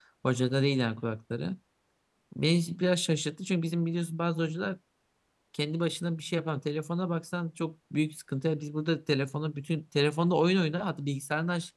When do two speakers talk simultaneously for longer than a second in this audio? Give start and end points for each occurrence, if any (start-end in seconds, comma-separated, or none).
none